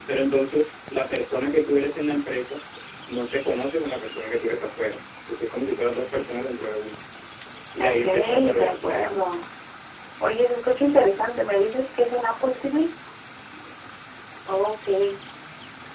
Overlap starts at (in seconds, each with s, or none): 7.8 s